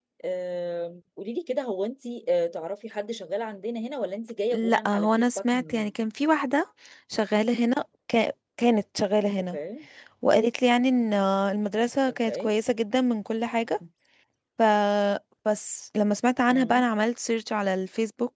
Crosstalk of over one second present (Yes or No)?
Yes